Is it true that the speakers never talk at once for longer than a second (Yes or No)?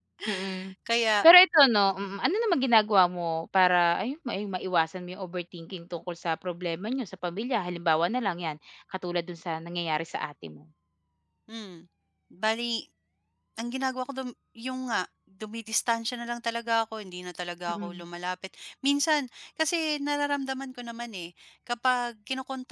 Yes